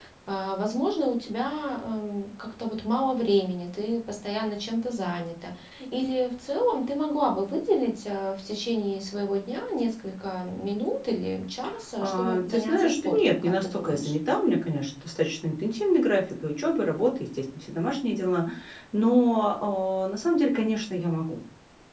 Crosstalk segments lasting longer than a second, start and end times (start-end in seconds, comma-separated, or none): 12.0-14.1